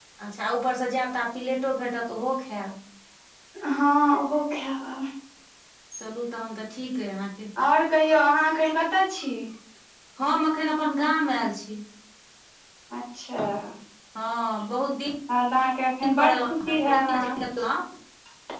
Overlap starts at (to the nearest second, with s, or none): 16 s